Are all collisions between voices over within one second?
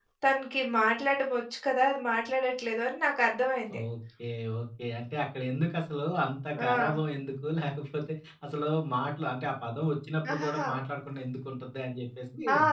Yes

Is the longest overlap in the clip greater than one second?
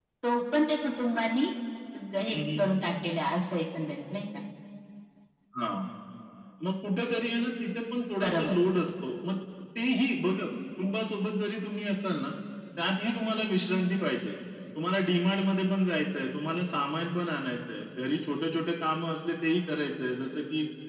No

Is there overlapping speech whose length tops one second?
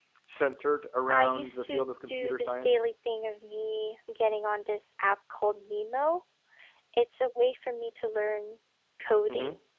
Yes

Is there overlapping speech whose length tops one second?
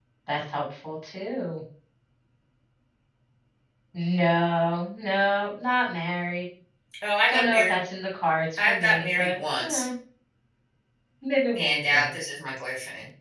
Yes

